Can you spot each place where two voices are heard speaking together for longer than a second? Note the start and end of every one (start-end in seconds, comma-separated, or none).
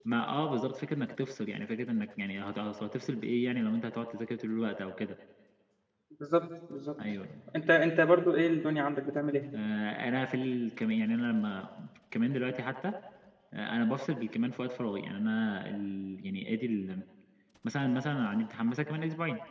none